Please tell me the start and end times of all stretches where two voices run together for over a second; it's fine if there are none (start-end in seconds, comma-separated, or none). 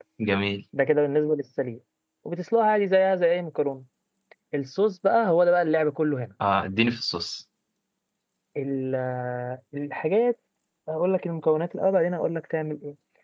none